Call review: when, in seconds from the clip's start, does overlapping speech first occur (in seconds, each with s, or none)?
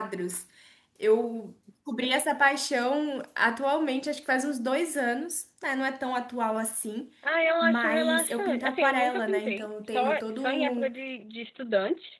7.6 s